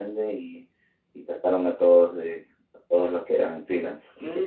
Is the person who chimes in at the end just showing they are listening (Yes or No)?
No